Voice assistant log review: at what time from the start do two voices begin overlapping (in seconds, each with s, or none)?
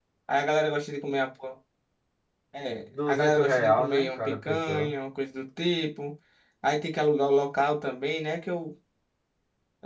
2.8 s